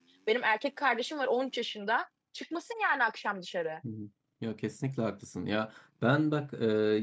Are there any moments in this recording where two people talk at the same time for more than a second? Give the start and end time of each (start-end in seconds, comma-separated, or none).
none